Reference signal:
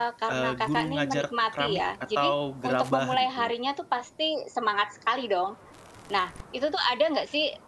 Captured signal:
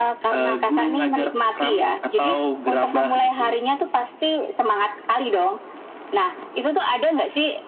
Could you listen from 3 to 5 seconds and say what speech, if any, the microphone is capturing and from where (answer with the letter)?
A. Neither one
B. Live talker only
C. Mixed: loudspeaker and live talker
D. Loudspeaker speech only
D